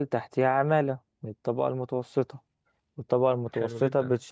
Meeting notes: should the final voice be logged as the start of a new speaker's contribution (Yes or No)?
No